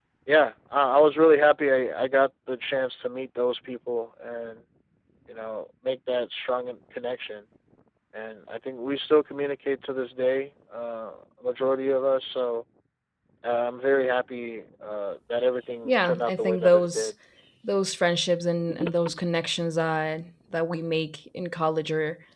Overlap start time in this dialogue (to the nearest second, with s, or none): 16 s